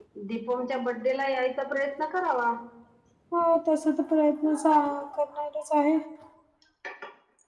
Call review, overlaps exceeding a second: none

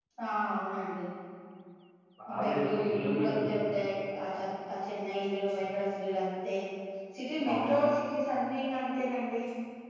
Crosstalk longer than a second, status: present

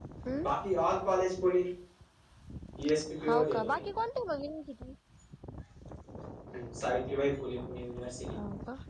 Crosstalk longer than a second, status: none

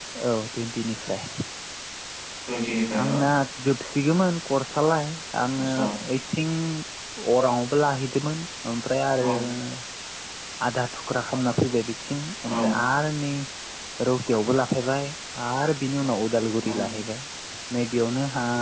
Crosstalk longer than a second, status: none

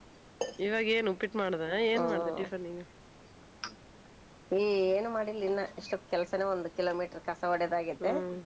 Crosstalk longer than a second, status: none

